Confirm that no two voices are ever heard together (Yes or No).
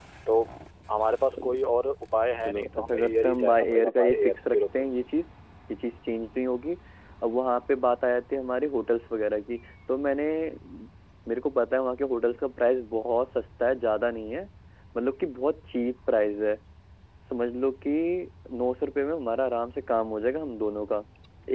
No